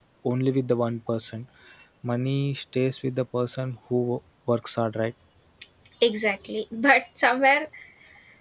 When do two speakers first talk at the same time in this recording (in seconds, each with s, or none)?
none